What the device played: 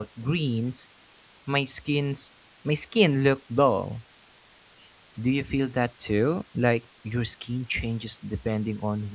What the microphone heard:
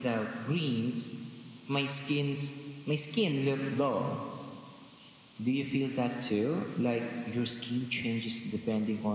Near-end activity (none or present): none